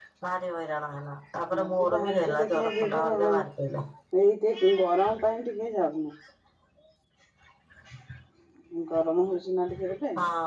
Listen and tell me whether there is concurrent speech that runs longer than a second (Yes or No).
Yes